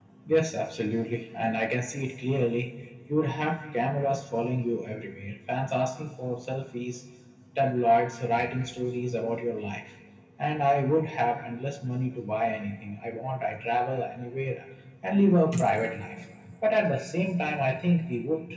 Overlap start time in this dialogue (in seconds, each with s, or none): none